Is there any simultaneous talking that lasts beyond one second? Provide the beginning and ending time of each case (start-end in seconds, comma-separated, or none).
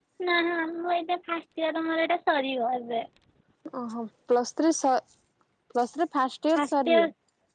none